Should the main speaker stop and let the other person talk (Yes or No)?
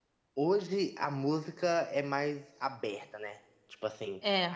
No